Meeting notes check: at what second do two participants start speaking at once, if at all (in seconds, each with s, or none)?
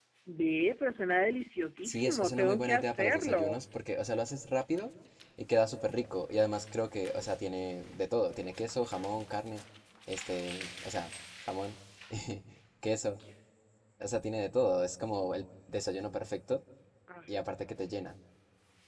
1.9 s